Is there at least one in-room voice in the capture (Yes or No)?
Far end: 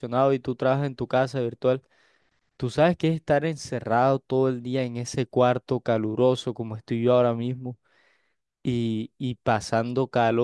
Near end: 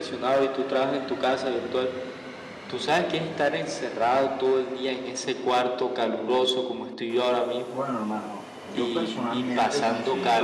Yes